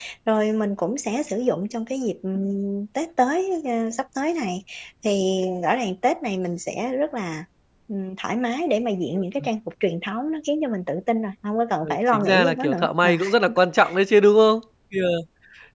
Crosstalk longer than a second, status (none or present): present